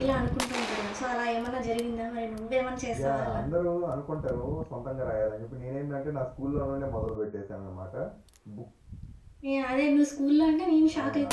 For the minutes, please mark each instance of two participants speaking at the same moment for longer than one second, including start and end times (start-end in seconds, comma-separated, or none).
none